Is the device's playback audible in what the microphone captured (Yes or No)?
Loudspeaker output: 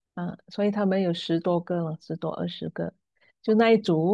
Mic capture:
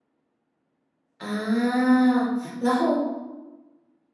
No